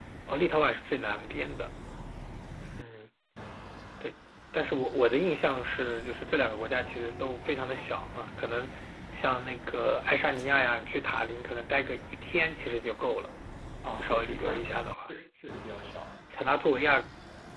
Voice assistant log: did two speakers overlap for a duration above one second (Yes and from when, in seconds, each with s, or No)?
Yes, from 13.9 s